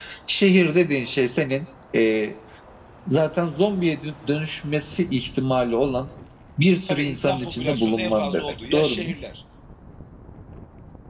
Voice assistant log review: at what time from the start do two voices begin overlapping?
7 s

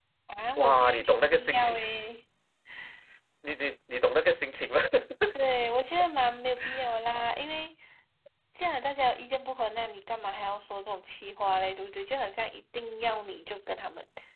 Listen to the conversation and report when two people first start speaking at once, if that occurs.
1 s

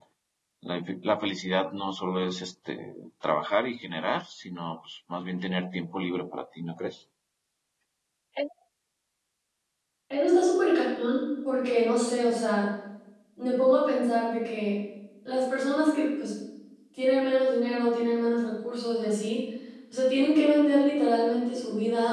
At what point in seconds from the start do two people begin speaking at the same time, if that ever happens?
none

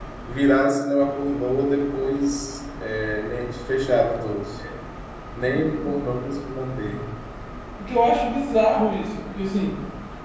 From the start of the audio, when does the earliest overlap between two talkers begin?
none

